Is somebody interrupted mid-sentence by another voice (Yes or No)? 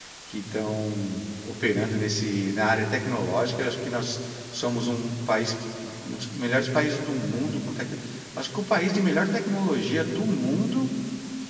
No